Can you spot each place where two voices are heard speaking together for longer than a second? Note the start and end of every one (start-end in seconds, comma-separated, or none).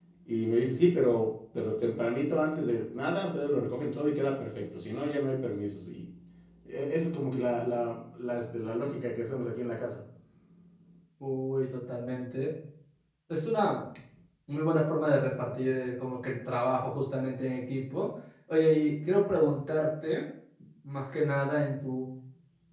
none